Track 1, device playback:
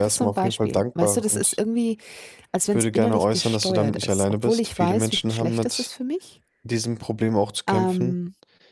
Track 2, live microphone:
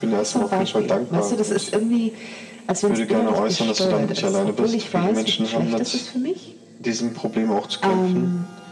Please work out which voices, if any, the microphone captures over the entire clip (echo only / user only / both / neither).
echo only